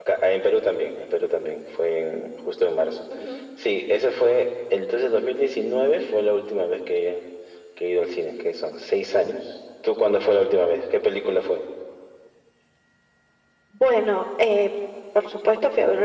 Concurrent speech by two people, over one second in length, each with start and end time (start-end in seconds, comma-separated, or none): none